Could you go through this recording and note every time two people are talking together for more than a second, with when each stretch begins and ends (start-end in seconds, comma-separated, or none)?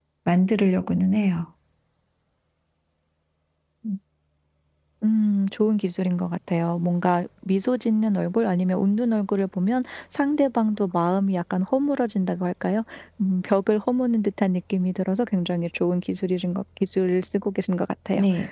none